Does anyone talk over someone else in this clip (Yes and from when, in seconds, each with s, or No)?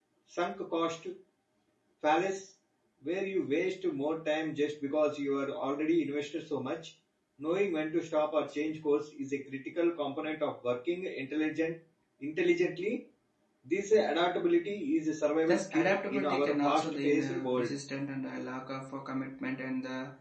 Yes, from 15.5 s